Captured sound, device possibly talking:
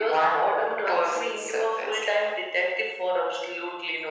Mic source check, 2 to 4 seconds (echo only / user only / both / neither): echo only